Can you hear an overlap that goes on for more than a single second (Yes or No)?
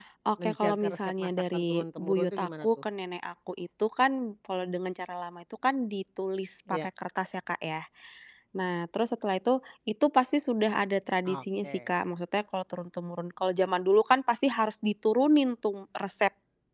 Yes